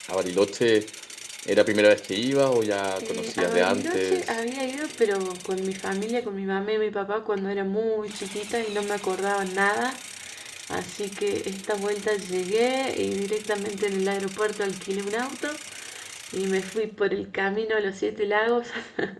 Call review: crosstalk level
present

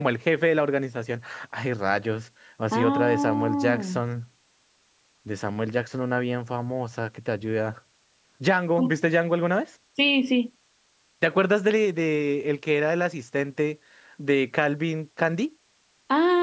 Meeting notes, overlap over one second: present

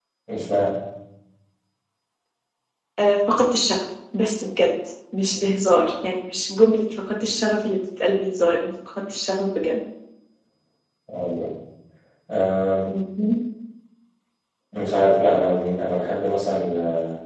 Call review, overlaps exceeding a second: none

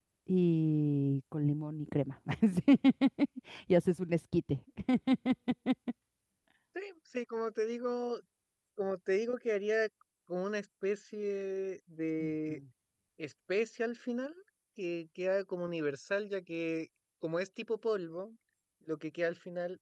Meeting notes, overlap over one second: none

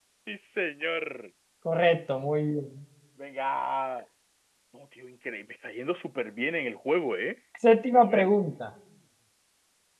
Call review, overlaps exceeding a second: none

